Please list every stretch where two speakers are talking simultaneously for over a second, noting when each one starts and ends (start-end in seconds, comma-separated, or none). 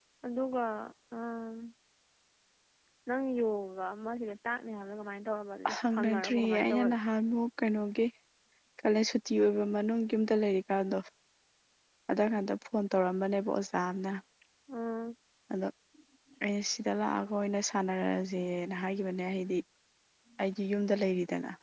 5.8-7.0